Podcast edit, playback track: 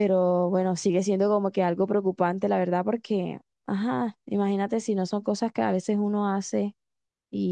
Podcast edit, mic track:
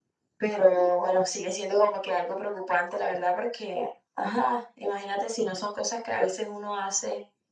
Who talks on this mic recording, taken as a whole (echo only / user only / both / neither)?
echo only